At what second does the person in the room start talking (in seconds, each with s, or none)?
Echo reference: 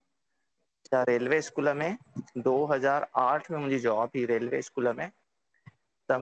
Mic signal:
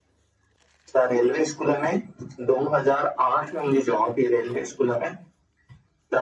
none